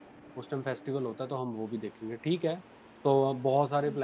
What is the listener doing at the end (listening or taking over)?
listening